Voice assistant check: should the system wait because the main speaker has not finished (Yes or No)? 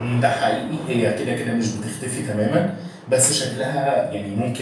Yes